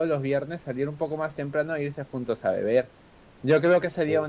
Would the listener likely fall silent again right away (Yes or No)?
Yes